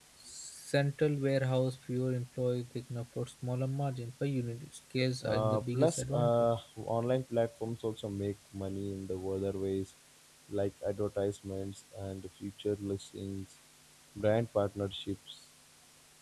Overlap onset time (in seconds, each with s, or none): 5.2 s